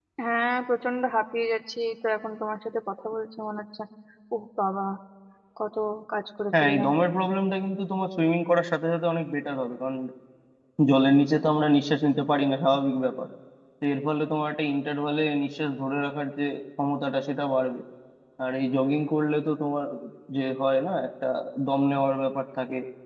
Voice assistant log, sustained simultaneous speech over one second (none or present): none